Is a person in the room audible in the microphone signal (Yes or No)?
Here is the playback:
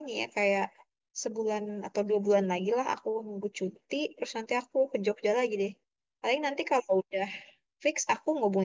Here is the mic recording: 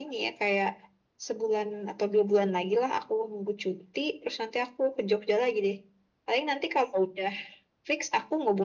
No